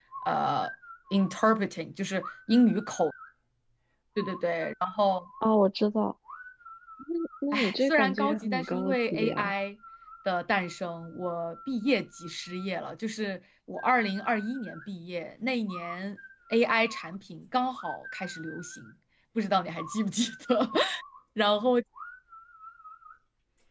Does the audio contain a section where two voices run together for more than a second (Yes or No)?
Yes